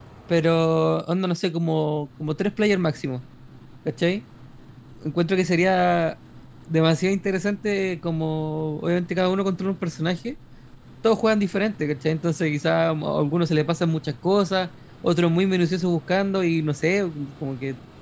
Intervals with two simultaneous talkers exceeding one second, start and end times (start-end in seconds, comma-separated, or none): none